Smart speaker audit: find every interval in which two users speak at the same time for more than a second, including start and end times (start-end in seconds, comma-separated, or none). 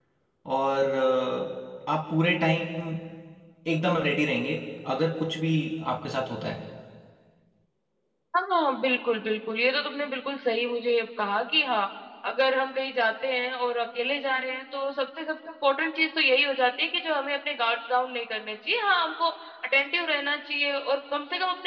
none